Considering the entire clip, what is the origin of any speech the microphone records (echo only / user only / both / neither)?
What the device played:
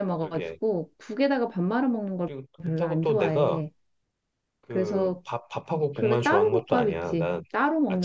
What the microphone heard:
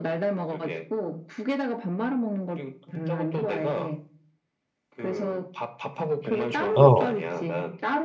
both